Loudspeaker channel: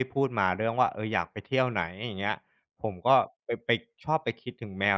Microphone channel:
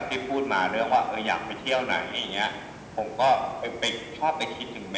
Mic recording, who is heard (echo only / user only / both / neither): echo only